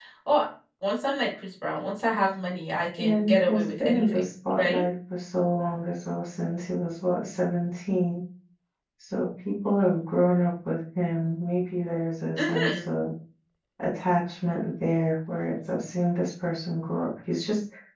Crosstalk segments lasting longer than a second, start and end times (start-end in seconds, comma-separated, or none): 3.0-4.8